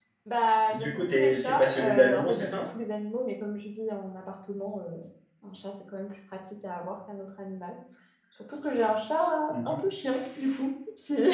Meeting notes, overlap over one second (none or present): present